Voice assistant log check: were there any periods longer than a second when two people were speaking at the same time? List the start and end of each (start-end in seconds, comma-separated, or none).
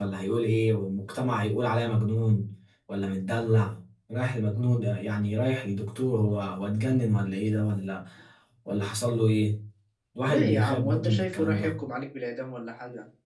10.3-11.8